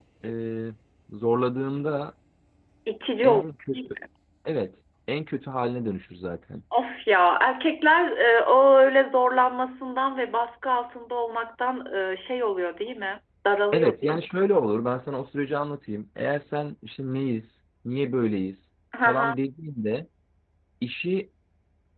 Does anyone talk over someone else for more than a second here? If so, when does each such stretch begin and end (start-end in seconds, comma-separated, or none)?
none